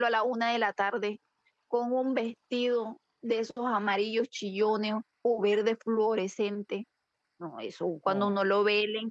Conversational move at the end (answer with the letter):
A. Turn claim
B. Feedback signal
B